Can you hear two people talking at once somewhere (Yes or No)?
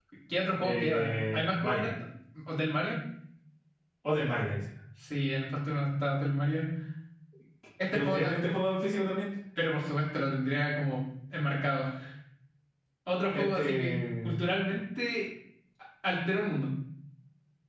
Yes